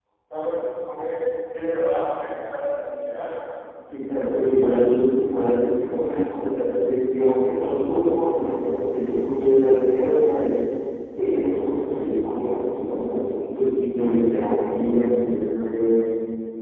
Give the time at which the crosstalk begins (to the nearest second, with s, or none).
none